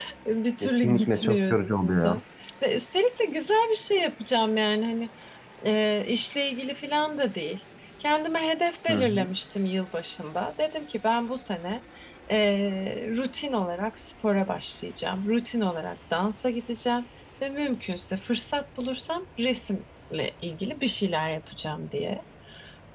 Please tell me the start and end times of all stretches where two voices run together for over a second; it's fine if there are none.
0.6-2.2

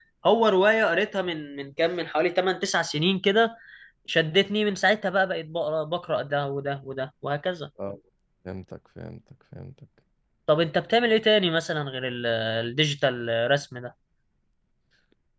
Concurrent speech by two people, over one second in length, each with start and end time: none

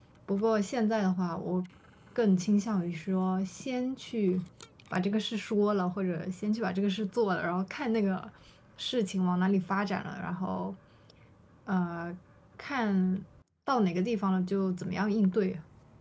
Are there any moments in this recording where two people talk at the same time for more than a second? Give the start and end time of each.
none

